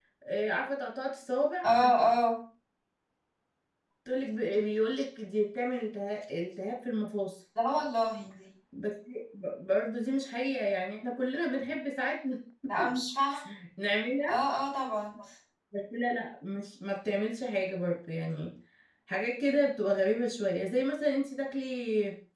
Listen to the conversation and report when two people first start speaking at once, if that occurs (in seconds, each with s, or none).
none